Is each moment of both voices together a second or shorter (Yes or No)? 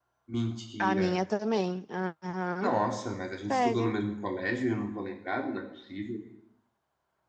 Yes